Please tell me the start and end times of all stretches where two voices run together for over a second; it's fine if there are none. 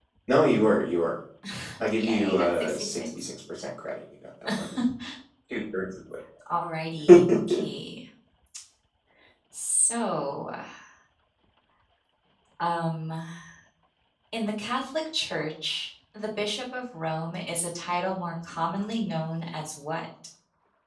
1.9-3.2

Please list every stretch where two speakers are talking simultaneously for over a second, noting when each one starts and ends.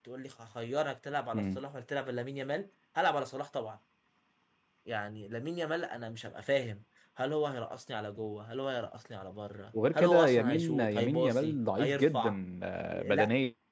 9.9-12.4

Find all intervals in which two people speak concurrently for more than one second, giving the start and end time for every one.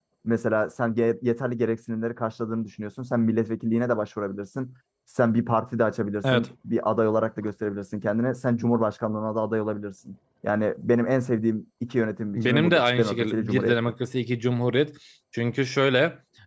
12.4-13.8

